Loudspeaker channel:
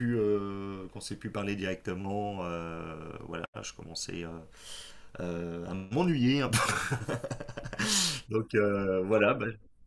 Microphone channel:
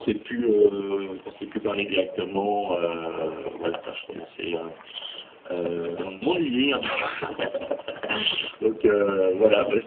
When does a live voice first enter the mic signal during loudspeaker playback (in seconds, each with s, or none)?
none